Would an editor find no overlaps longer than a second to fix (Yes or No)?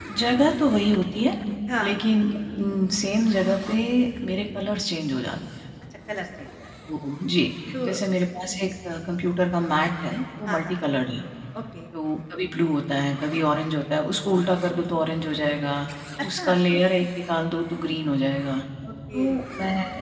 Yes